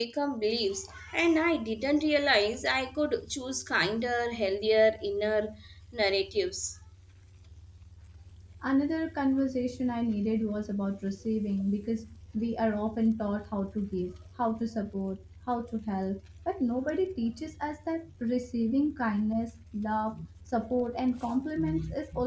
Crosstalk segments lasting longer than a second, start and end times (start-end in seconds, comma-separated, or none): none